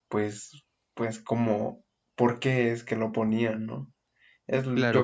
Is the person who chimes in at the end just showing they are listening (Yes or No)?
No